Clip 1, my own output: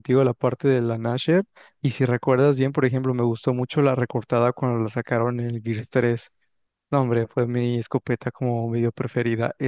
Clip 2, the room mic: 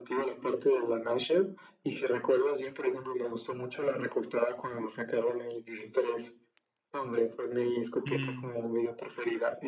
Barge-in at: 8.1 s

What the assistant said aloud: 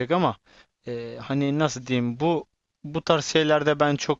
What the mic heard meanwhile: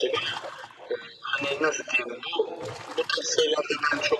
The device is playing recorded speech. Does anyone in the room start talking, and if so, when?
none

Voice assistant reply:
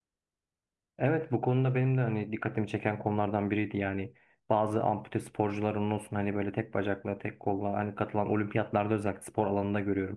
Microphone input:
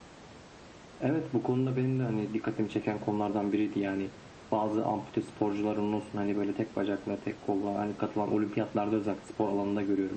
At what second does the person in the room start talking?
none

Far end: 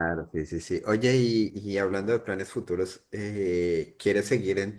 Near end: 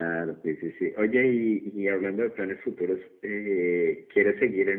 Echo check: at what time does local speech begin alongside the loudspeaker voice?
none

